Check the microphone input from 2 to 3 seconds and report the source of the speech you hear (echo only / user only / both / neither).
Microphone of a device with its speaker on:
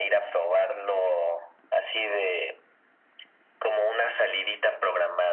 echo only